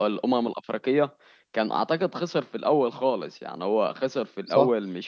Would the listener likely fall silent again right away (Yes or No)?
Yes